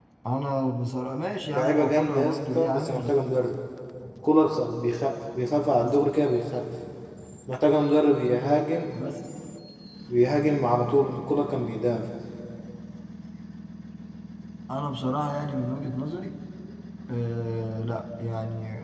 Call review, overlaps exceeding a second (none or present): present